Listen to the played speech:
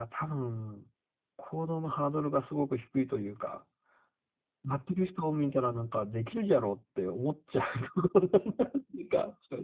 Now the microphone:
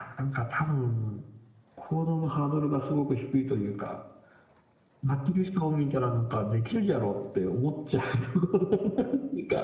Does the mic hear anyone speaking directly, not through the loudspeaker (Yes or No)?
No